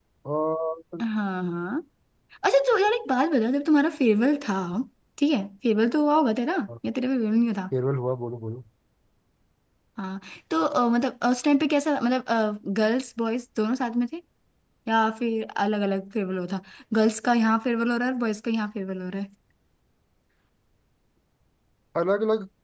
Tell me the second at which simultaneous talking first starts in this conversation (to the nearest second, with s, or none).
none